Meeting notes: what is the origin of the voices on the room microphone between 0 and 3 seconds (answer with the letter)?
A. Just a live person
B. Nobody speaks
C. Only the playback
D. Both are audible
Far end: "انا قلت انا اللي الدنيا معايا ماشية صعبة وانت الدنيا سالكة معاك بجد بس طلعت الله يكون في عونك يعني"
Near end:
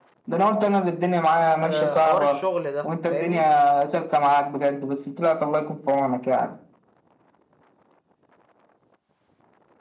D